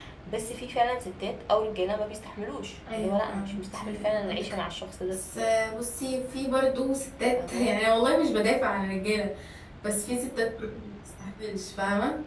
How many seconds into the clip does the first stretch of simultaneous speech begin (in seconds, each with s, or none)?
2.9 s